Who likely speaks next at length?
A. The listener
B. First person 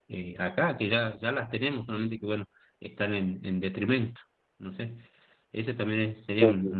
B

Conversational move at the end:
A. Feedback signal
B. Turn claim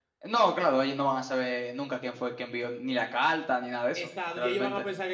B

